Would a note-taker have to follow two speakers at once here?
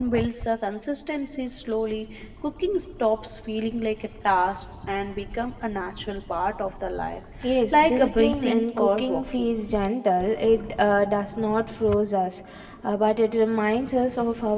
Yes, from 7.7 s

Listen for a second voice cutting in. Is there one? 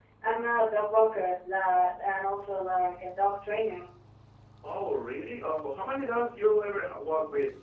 No

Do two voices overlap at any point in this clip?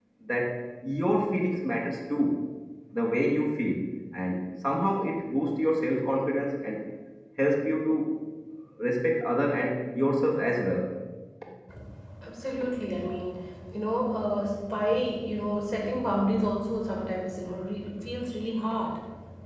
No

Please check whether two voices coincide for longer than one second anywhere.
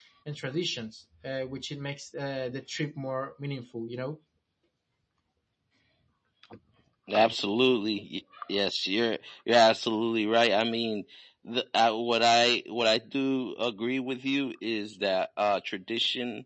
No

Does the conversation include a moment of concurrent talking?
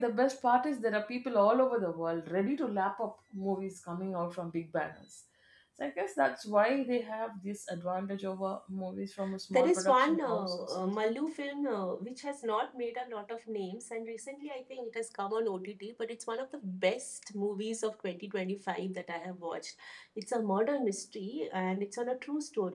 Yes, from 9.5 s

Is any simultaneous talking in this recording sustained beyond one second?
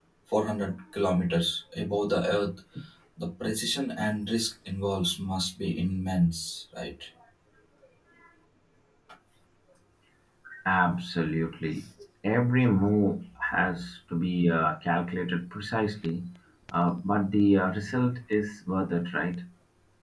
No

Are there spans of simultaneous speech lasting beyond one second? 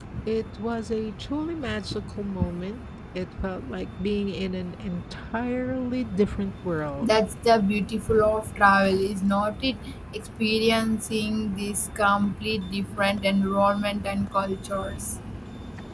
No

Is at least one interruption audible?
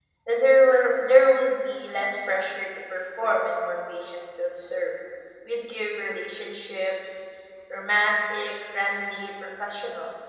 No

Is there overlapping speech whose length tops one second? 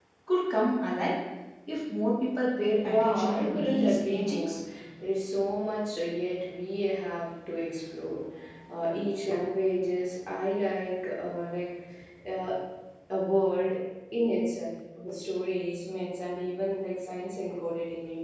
Yes, from 2.8 s

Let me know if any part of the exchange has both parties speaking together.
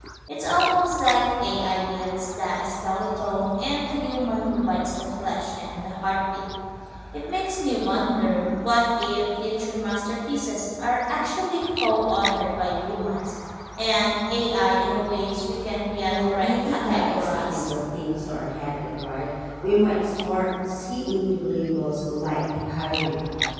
Yes, from 16.1 s

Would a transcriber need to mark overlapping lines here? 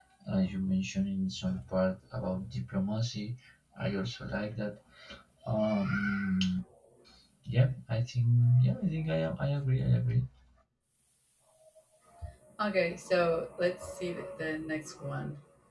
No

